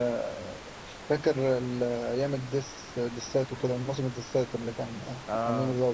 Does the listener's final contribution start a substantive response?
Yes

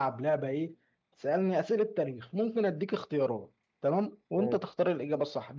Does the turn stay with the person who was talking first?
Yes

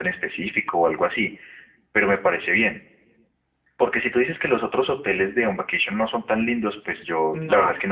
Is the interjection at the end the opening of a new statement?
No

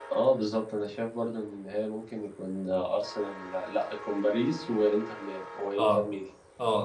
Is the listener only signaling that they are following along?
No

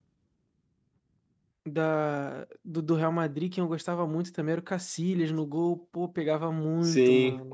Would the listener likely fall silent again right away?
No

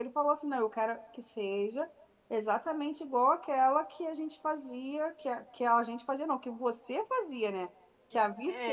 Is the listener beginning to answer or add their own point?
No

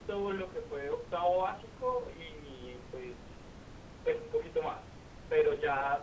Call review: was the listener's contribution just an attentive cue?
Yes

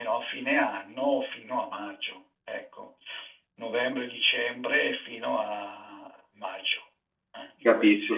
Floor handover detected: Yes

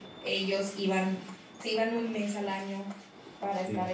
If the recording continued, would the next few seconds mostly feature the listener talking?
No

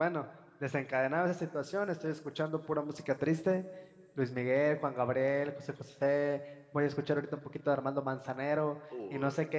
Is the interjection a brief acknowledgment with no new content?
Yes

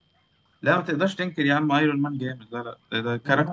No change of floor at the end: Yes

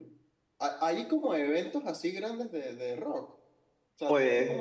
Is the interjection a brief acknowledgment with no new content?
Yes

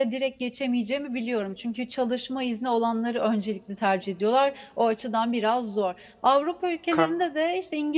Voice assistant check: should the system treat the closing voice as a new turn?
No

